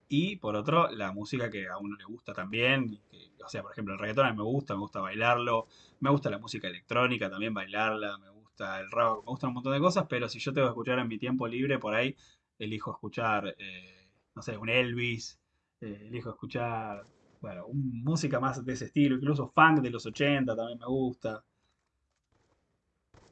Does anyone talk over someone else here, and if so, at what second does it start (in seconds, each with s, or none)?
none